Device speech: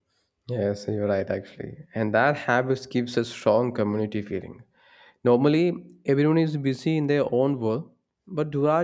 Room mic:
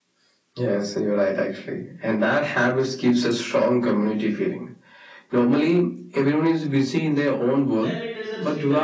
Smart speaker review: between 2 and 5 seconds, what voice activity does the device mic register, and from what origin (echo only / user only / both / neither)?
echo only